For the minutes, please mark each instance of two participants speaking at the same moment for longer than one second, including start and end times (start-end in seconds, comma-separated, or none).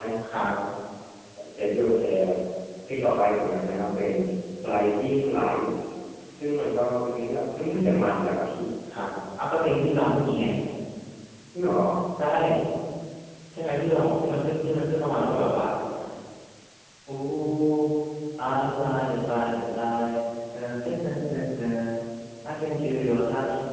none